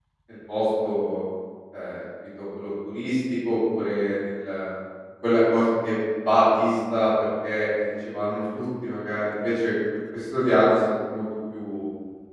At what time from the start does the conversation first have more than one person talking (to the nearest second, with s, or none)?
none